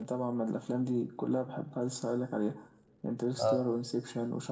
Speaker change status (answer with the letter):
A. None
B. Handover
A